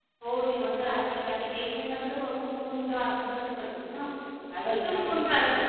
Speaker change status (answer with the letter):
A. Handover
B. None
A